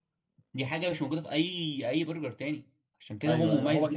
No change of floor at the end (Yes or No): No